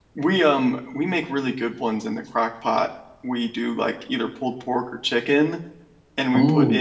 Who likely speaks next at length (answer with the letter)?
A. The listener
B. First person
B